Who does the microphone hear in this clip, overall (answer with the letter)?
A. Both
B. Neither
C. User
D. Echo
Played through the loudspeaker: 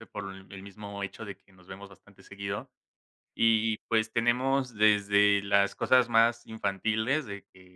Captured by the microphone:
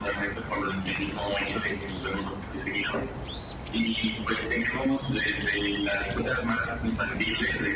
D